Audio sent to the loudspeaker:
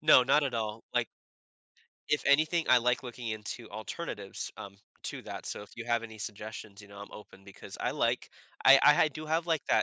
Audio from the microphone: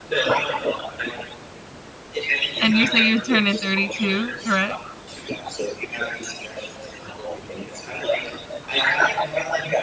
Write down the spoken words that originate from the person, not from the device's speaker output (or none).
And you say you're turning 32, correct?